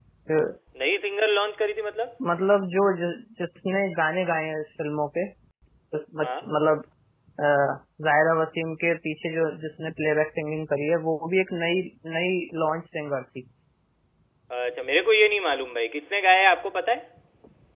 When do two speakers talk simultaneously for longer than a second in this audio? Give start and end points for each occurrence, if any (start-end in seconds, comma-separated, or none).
none